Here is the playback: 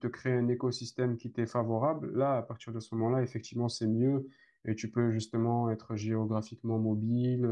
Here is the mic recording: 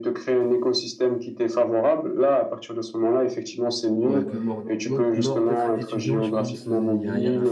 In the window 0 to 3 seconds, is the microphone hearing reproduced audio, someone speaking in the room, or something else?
echo only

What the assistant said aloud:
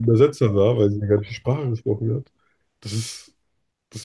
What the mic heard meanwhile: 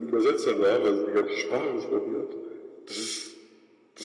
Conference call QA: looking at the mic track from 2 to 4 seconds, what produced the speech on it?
echo only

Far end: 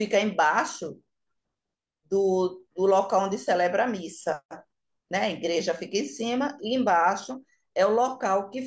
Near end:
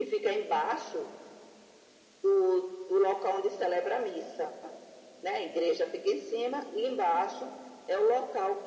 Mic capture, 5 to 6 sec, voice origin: echo only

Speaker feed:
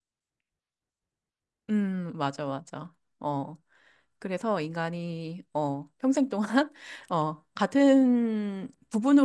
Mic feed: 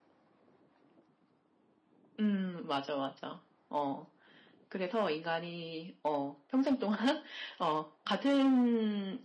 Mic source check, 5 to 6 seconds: echo only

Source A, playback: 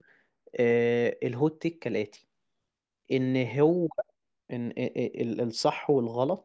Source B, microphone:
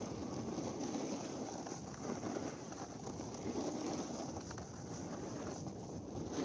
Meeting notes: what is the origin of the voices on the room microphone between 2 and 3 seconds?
neither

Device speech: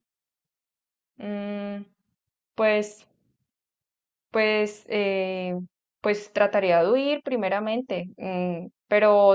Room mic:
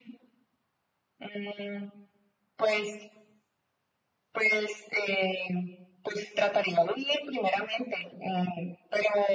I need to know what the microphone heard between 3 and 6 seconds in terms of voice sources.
echo only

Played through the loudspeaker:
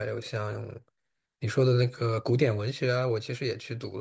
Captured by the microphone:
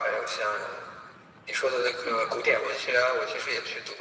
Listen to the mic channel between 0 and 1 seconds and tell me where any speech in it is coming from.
echo only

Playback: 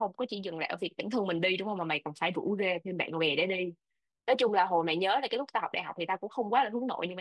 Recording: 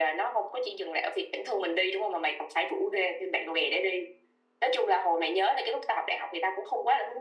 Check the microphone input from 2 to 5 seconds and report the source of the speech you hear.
echo only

